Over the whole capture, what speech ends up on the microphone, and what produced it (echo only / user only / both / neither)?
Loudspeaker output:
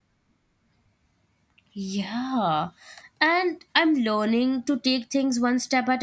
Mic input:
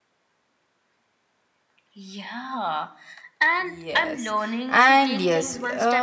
both